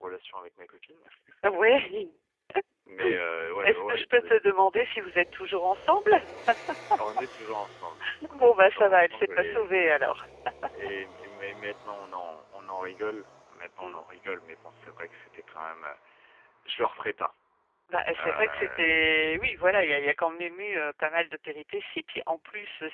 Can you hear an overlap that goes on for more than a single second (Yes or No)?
Yes